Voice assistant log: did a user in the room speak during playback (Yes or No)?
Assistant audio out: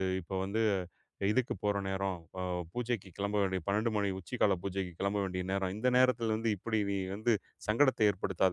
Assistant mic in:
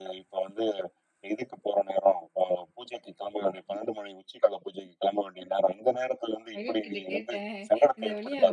Yes